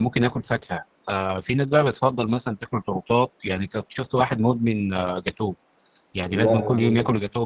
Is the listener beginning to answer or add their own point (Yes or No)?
No